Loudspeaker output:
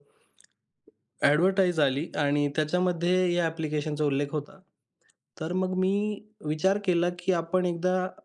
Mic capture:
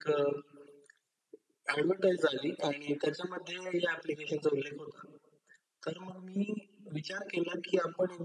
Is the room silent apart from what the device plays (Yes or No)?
Yes